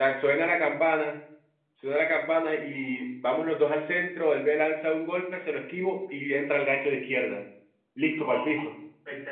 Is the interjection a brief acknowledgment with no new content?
No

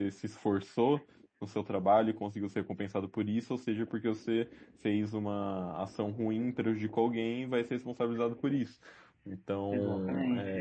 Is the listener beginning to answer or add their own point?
Yes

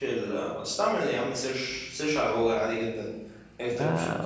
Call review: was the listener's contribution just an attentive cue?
Yes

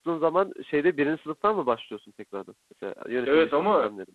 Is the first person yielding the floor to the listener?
Yes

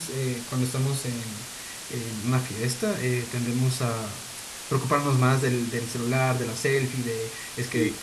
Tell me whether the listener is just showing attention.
Yes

